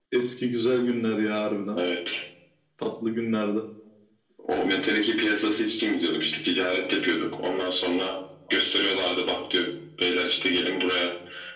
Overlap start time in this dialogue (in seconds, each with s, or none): none